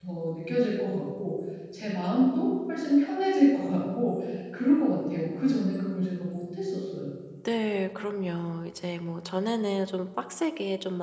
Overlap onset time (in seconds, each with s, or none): none